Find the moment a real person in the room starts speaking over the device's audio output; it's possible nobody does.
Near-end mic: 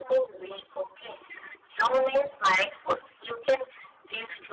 none

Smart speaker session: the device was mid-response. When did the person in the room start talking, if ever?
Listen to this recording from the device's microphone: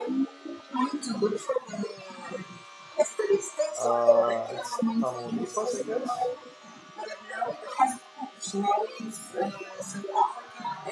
3.7 s

